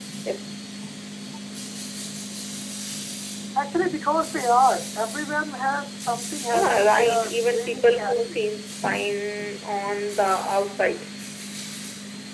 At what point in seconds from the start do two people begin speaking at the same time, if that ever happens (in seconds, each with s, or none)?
6.5 s